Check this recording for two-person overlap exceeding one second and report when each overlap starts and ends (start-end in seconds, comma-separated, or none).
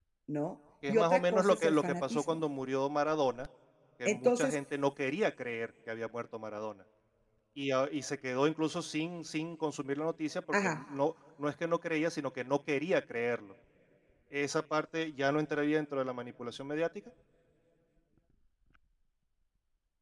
0.9-2.4